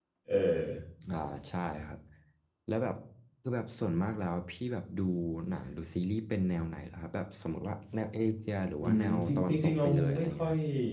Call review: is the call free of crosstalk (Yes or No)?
No